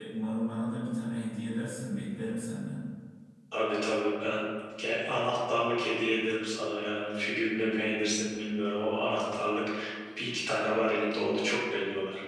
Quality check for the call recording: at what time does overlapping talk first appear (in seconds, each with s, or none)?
none